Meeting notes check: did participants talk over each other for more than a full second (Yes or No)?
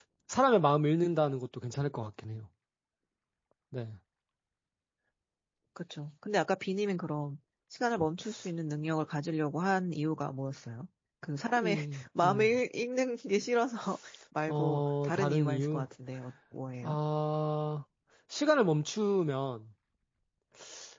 Yes